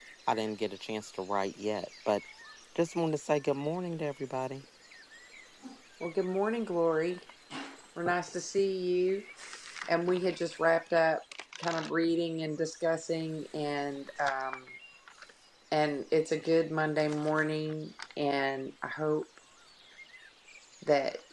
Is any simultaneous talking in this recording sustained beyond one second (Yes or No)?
No